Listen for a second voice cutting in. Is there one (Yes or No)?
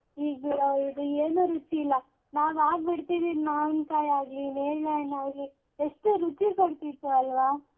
No